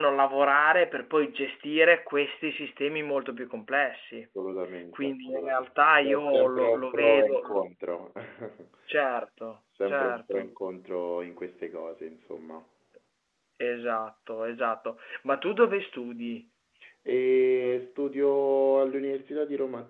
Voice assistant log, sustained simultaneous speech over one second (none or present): present